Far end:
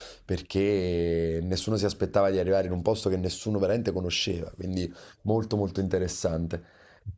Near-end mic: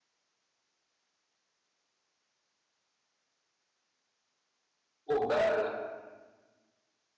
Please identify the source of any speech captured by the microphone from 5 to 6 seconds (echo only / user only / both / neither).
user only